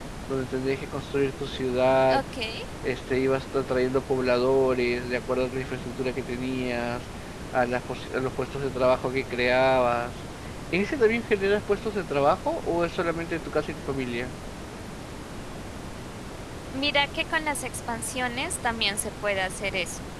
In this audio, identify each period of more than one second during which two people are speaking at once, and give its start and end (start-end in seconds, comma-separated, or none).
none